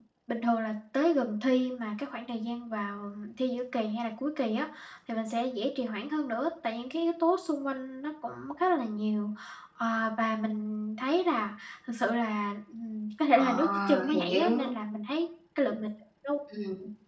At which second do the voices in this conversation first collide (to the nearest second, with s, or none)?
13 s